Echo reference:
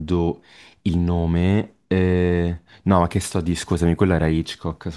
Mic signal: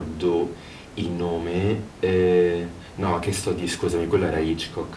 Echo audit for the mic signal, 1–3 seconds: echo only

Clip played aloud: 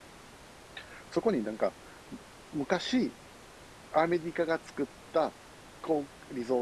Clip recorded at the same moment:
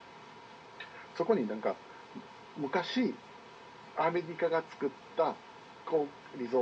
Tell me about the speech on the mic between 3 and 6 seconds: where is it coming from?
echo only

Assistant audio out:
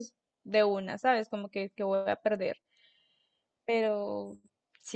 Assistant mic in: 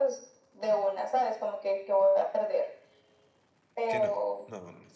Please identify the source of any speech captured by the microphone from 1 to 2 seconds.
echo only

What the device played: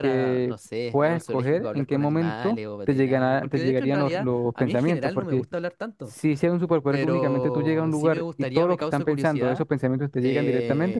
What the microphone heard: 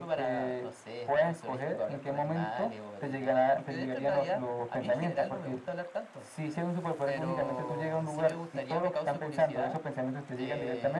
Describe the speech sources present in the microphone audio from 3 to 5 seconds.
echo only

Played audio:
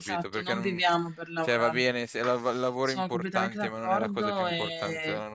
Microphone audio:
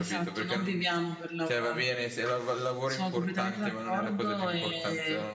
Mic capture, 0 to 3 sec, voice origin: echo only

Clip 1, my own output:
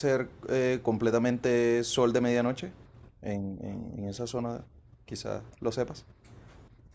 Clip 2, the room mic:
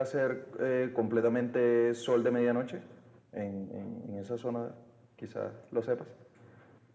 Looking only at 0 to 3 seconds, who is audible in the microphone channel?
echo only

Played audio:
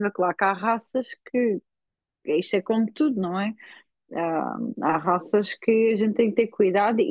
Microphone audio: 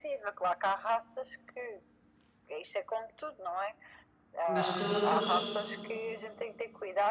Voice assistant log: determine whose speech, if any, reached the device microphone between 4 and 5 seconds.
both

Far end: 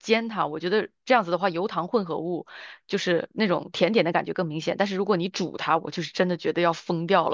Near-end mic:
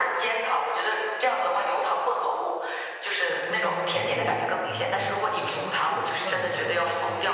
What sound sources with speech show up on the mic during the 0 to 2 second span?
echo only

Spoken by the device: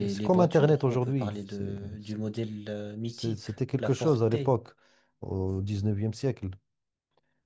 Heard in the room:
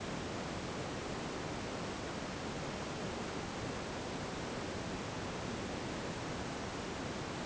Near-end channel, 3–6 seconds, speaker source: neither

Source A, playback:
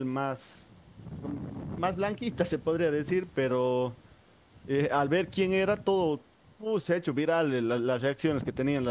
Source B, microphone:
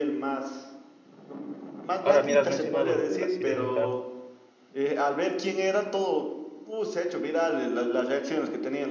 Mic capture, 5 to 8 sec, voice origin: echo only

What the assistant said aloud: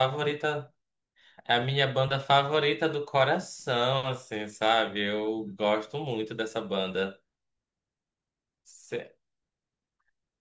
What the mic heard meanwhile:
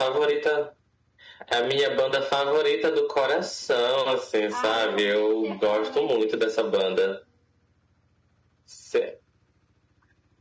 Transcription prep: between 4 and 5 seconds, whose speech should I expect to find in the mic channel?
both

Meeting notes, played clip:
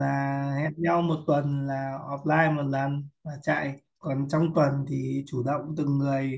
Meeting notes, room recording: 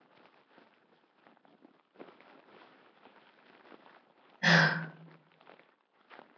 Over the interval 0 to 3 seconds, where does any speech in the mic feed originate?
neither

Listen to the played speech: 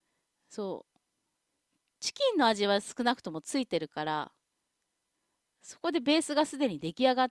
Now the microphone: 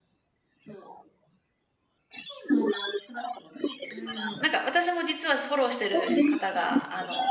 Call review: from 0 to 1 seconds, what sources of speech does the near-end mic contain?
echo only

